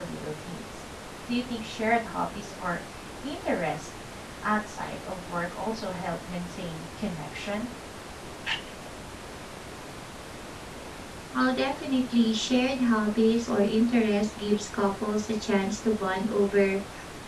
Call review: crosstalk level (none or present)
none